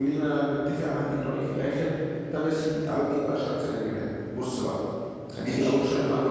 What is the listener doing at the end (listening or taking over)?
listening